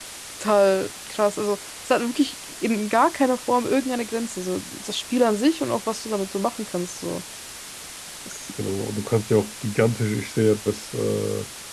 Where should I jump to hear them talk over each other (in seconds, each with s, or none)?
none